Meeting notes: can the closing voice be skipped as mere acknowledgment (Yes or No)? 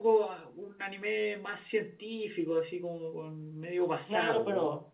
No